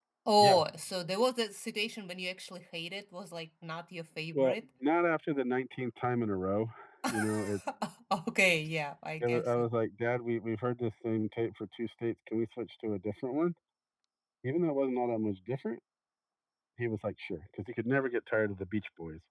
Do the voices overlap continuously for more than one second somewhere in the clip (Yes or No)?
No